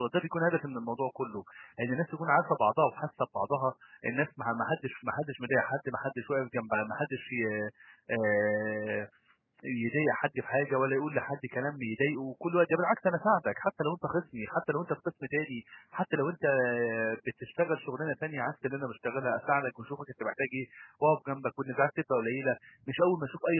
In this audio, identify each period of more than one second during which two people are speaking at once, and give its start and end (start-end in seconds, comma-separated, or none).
none